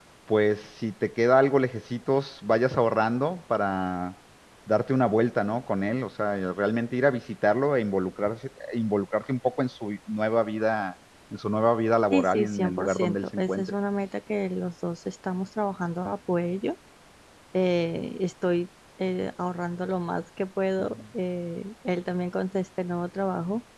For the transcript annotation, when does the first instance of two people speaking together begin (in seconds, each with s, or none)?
12.1 s